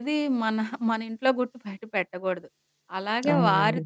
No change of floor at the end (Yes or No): Yes